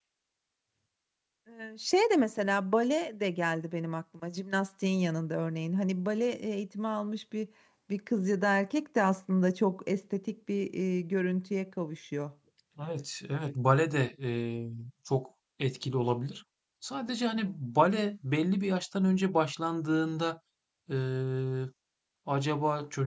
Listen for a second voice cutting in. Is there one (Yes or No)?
No